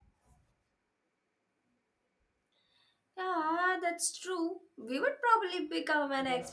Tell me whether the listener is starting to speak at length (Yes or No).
Yes